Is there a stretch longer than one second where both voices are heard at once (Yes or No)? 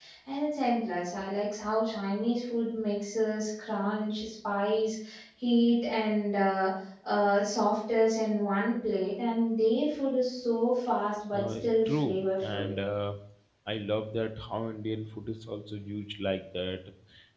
Yes